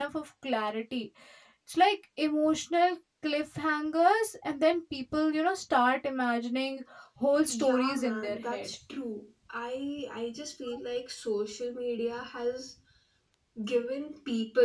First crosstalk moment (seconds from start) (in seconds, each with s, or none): 7.5 s